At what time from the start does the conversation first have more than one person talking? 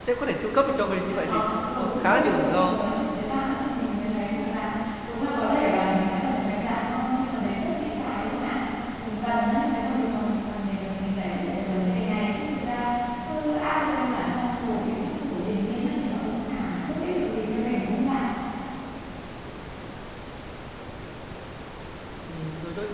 0.5 s

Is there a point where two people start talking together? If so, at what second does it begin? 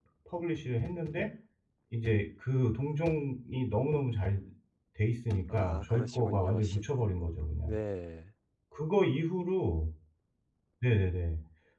5.5 s

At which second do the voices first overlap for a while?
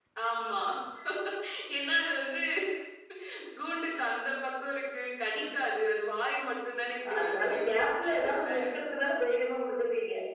7.0 s

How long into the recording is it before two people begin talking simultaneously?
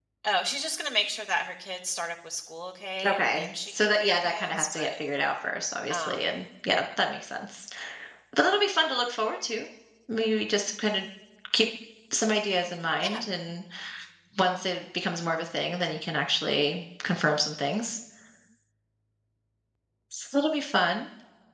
3.0 s

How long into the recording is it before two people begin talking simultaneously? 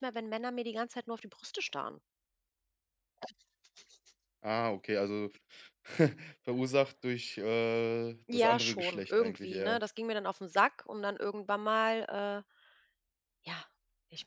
8.3 s

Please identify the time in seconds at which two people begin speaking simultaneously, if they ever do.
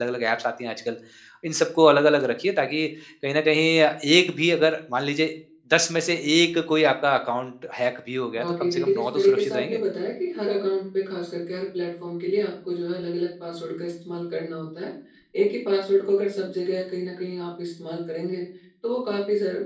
8.4 s

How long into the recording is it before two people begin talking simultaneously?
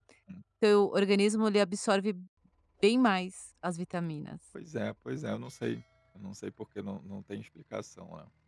none

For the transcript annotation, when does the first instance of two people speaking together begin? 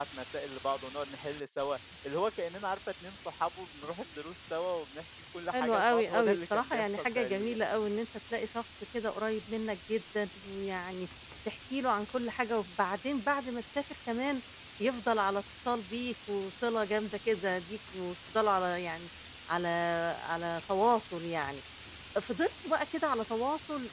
5.5 s

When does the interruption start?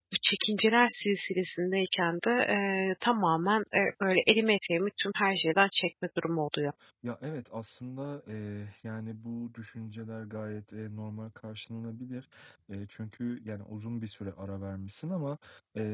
none

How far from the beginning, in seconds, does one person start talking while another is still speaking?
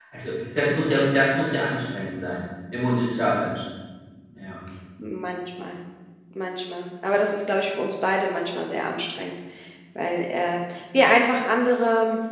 none

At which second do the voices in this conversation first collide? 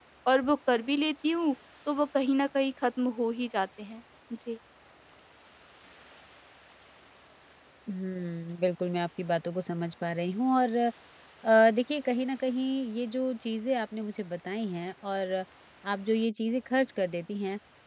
none

